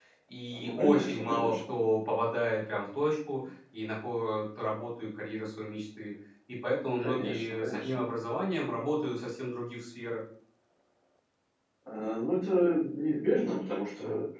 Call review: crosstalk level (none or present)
present